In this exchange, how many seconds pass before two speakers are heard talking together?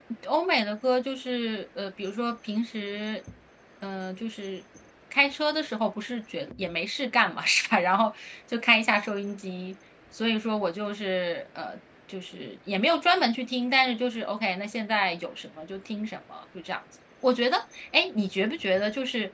none

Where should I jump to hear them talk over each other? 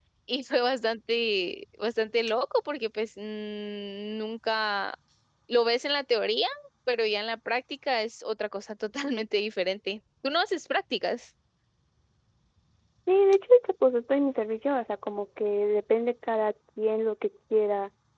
none

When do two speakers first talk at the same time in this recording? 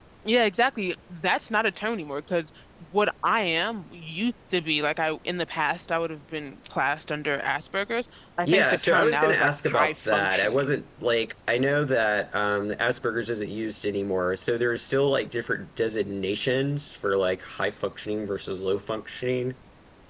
8.4 s

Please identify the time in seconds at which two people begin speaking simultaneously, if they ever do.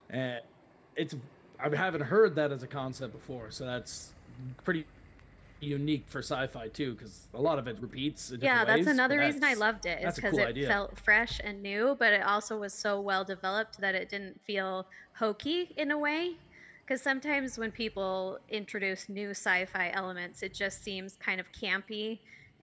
8.4 s

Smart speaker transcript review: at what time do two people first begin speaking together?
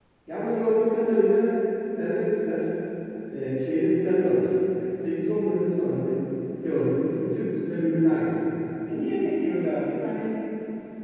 none

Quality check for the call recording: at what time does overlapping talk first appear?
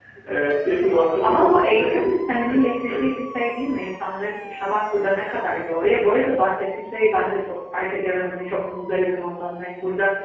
1.2 s

